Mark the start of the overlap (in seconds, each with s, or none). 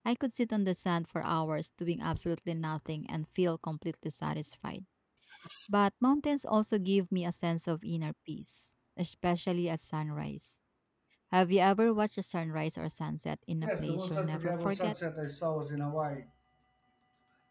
13.6 s